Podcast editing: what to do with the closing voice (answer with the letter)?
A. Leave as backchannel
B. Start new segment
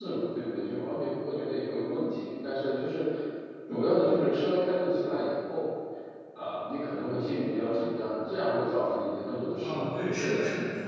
B